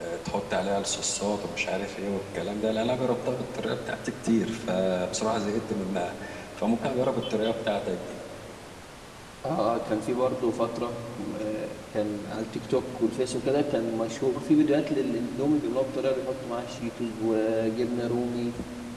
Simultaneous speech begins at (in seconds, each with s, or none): none